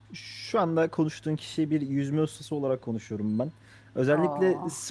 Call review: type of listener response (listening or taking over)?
listening